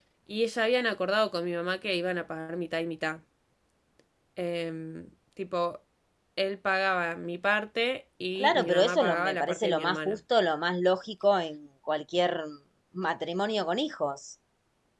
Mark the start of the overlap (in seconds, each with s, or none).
8.4 s